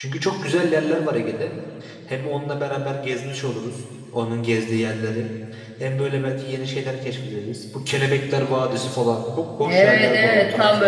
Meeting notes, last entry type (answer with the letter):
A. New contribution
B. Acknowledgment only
A